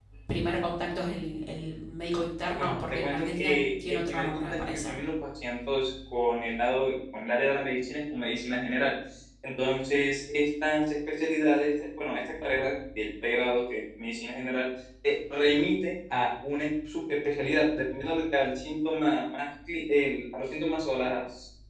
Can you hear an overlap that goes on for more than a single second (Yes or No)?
Yes